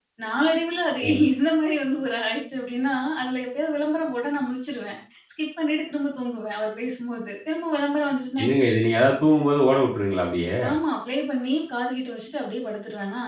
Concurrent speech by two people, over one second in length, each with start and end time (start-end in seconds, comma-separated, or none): none